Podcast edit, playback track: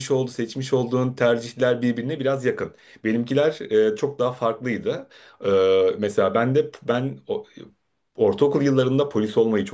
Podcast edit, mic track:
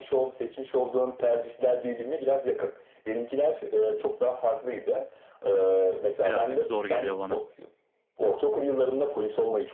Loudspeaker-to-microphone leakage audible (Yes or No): Yes